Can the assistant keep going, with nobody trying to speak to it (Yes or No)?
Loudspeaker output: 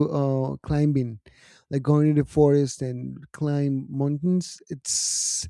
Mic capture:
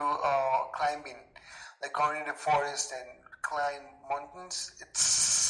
Yes